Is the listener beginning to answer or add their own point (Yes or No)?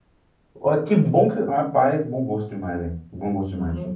Yes